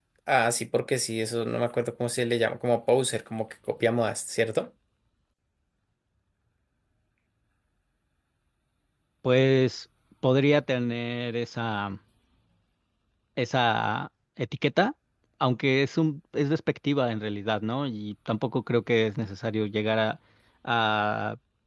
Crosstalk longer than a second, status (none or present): none